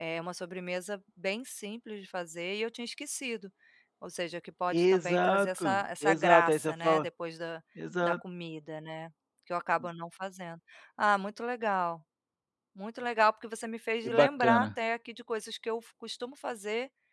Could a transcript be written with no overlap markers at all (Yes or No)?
No